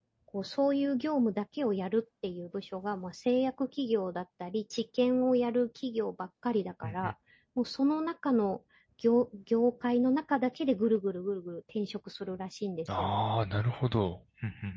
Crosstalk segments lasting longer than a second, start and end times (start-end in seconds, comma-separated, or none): none